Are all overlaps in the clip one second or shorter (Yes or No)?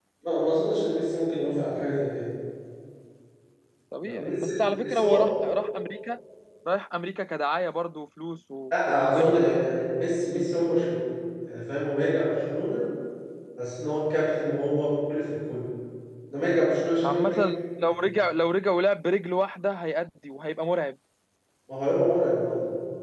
No